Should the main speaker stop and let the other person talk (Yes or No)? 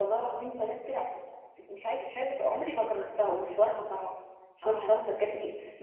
No